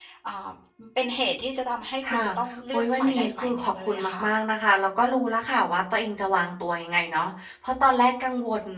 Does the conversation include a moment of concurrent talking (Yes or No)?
Yes